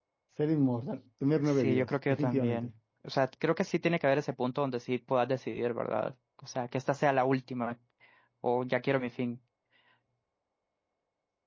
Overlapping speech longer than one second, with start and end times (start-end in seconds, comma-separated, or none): 1.5-2.7